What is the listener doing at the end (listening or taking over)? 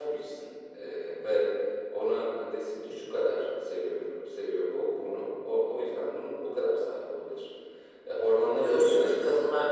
taking over